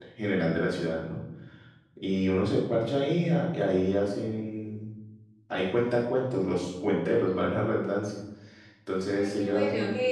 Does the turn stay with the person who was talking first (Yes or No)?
No